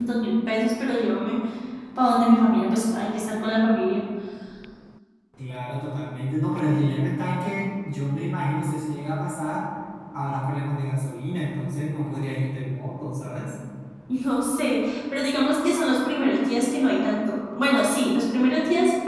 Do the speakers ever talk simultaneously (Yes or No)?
No